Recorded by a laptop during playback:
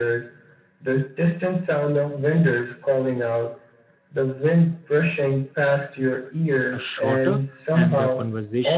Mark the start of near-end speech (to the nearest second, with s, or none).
7 s